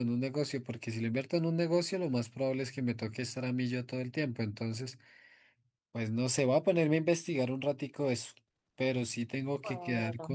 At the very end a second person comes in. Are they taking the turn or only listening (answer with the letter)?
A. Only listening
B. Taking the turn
A